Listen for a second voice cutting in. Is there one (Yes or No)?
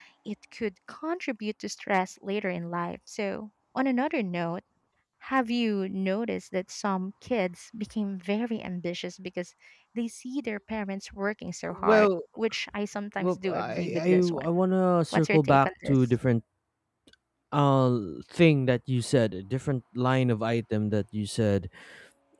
Yes